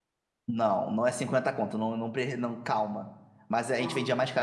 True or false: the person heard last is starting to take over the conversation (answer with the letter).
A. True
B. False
B